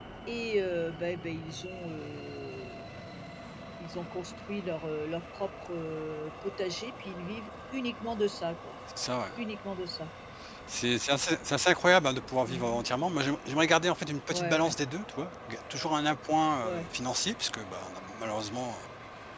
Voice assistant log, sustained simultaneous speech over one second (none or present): none